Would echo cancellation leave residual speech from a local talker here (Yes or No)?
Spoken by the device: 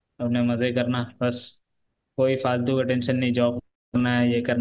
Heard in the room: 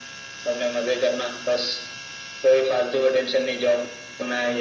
No